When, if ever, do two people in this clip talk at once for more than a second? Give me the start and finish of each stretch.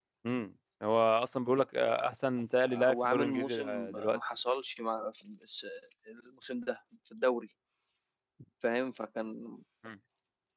2.7-4.2

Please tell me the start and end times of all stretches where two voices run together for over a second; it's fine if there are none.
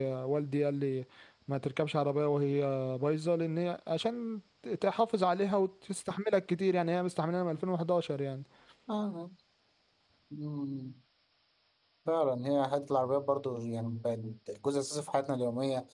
none

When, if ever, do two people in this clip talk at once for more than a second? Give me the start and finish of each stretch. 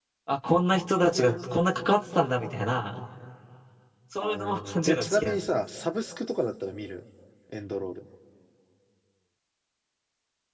4.2-5.4

